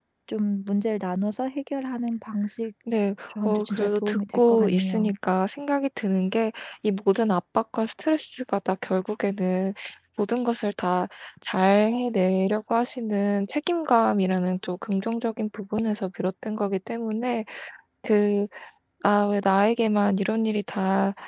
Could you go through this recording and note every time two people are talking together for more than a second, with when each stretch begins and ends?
3.4-5.1

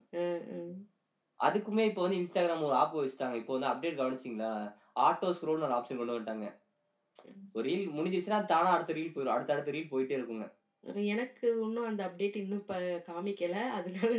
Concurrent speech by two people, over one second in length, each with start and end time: none

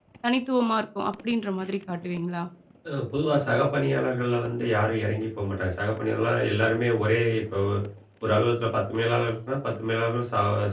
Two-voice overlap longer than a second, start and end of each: none

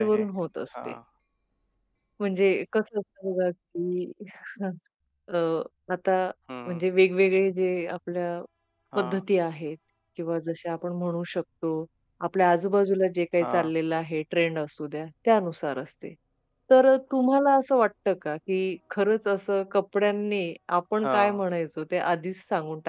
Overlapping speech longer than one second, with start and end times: none

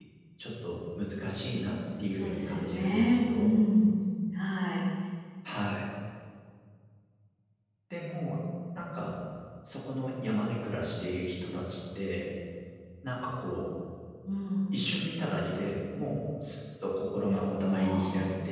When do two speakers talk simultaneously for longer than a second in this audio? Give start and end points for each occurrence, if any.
2.1-3.6

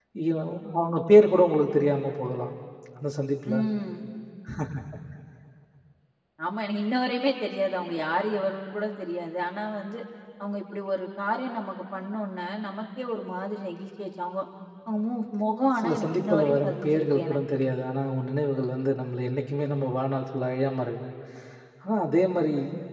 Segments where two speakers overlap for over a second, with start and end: 15.8-17.4

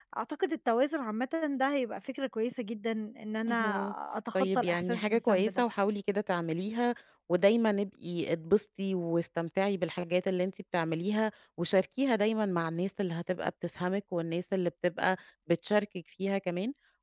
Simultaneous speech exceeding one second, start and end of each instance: 4.3-5.6

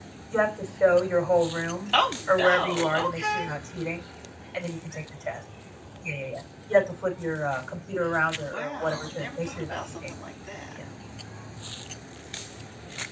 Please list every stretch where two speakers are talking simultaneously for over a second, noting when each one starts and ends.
2.3-3.5, 8.5-10.1

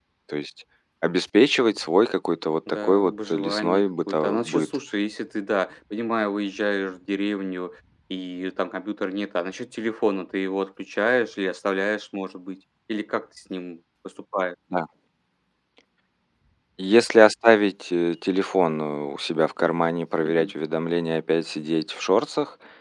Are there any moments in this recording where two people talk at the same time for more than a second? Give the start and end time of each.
2.8-4.7

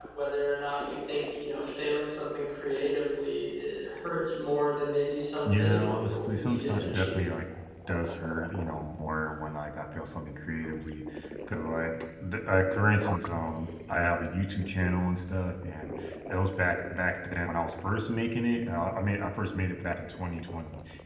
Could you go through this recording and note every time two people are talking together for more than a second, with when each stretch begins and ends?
5.5-7.3

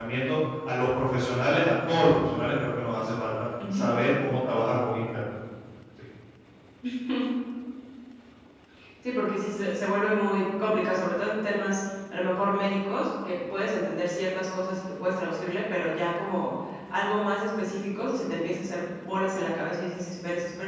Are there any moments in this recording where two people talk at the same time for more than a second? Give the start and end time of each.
none

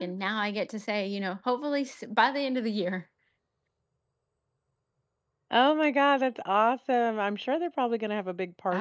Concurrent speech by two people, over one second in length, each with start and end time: none

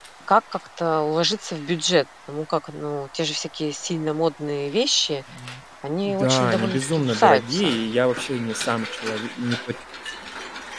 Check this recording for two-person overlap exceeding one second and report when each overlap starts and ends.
6.0-7.8

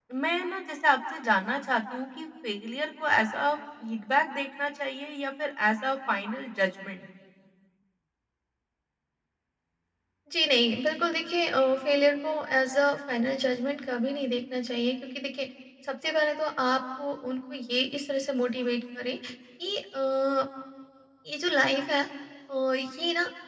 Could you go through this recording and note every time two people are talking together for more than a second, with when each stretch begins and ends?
none

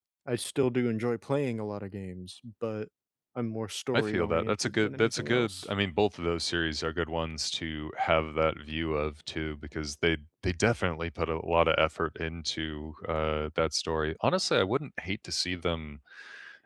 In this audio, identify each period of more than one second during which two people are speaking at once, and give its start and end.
3.9-5.7

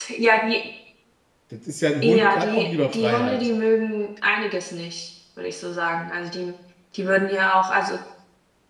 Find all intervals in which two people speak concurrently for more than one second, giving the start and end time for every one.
2.0-3.5

